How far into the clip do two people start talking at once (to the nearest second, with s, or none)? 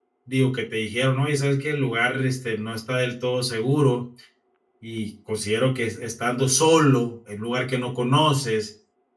none